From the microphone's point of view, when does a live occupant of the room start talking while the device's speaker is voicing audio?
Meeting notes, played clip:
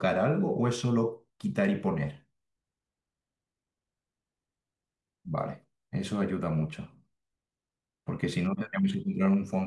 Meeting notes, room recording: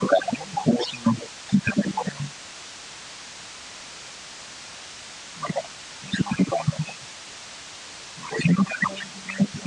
none

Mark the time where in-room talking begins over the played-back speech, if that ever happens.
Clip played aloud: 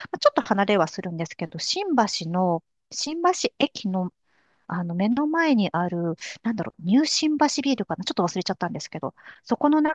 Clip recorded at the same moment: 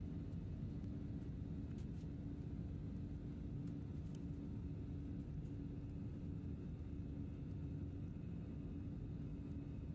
none

